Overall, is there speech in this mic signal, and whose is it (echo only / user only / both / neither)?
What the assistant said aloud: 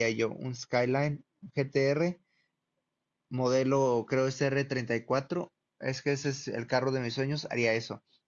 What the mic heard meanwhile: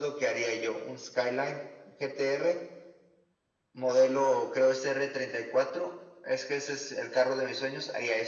echo only